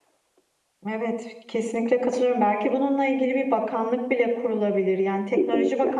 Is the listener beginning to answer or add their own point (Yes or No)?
No